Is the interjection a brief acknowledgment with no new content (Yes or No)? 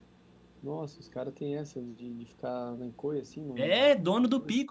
No